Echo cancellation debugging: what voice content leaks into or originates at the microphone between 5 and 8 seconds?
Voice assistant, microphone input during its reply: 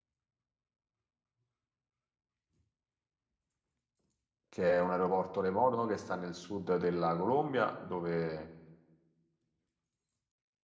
user only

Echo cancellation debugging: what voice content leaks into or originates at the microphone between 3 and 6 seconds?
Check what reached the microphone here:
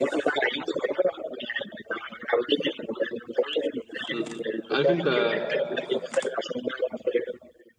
both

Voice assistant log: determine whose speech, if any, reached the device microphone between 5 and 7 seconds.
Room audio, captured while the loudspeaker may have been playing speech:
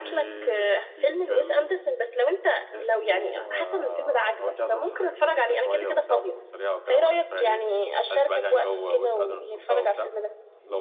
echo only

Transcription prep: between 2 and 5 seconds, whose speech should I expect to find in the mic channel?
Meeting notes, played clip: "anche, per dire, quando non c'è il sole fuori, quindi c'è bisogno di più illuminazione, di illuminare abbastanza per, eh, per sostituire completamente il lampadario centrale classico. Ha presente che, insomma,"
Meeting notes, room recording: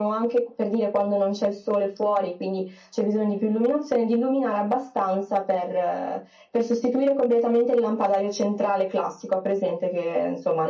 echo only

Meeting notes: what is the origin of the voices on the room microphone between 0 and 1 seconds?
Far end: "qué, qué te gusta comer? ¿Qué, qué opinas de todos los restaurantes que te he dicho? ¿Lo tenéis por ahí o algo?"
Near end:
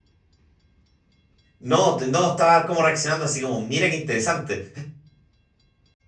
neither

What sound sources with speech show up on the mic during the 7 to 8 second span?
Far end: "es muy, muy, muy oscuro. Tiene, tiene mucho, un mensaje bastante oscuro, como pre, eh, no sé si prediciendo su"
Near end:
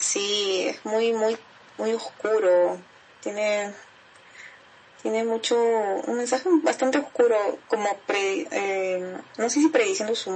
echo only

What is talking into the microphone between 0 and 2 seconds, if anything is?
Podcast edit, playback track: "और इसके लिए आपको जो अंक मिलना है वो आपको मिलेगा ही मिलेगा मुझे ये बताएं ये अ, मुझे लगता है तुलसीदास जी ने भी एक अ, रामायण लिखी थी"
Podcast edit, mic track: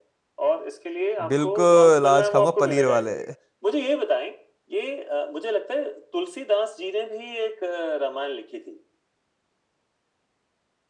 both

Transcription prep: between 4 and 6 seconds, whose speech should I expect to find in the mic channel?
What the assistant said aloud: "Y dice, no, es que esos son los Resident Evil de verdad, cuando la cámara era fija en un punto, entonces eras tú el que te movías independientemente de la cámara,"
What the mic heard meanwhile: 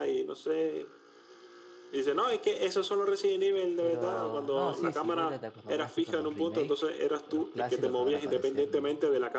both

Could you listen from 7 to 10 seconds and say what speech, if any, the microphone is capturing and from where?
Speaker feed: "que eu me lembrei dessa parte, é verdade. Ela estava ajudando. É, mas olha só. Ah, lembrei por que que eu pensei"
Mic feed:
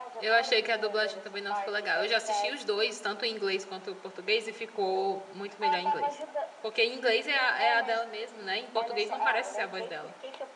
both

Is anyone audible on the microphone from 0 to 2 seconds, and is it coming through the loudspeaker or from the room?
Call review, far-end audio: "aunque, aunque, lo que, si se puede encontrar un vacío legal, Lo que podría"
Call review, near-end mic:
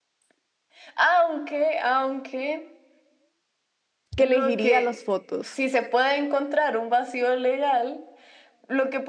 echo only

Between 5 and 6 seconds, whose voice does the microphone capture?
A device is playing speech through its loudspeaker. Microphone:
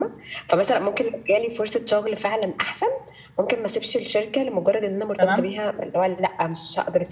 both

